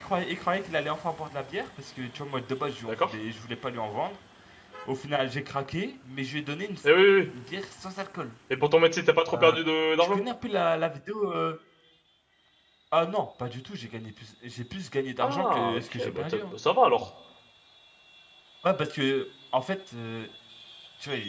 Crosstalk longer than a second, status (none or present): present